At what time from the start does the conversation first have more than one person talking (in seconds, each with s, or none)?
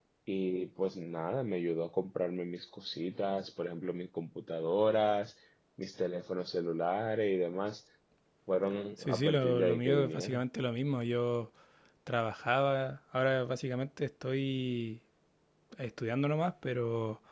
9.0 s